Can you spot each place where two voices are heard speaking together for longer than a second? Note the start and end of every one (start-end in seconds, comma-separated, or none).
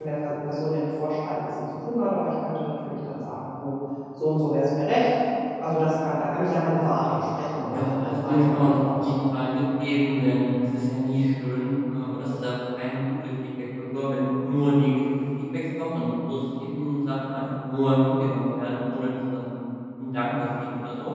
7.7-9.2